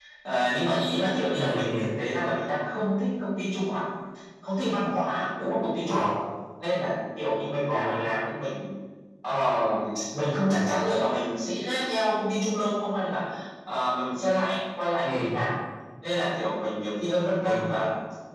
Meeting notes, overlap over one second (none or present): none